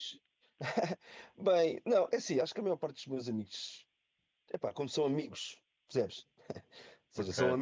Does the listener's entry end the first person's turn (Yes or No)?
No